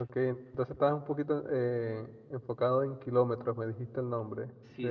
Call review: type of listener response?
taking over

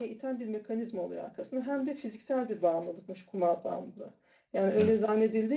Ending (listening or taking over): listening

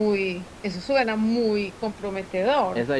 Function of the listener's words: taking over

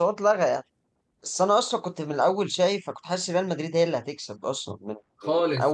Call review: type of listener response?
listening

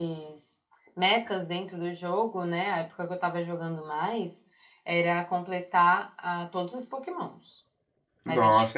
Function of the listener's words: taking over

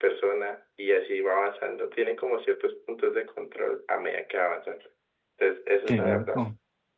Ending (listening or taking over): listening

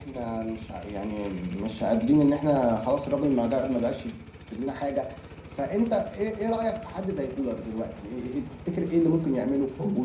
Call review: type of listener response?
listening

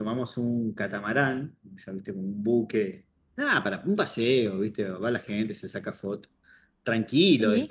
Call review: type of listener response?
listening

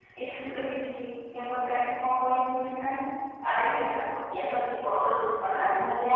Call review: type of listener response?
taking over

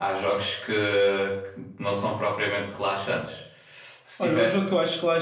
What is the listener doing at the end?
taking over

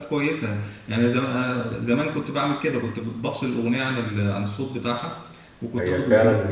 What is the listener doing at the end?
taking over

